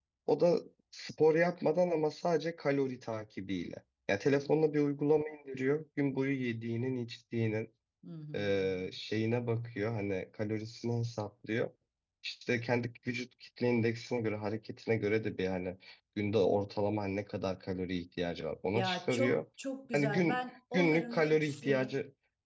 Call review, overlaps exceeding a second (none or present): present